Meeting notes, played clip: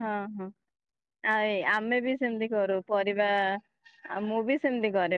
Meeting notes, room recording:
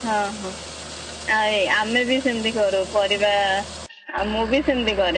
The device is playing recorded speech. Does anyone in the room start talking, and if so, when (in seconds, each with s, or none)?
none